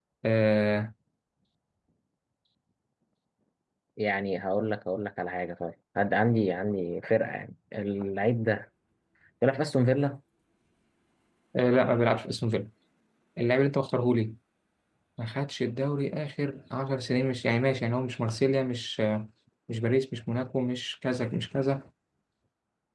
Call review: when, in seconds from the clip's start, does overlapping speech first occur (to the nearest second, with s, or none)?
none